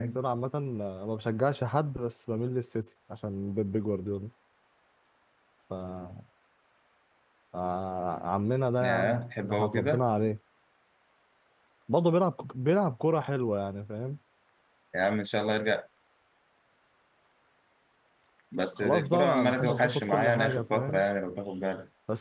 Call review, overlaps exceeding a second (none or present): present